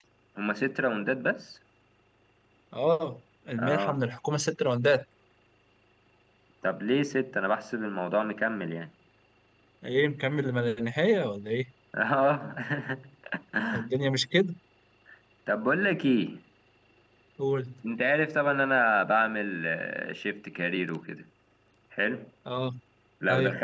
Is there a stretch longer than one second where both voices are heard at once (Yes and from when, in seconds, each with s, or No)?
No